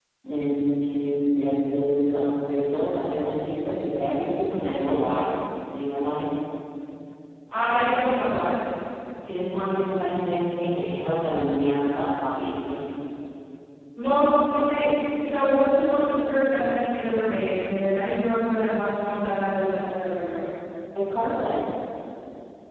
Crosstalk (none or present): none